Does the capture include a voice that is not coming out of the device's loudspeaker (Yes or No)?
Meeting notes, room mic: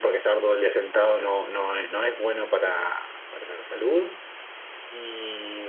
No